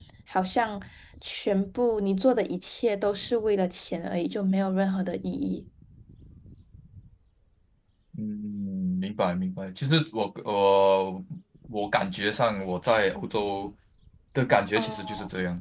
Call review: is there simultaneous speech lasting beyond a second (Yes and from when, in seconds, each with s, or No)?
No